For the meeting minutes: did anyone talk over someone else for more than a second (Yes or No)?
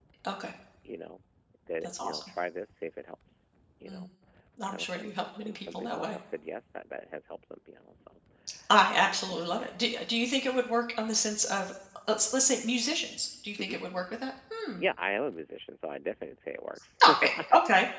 Yes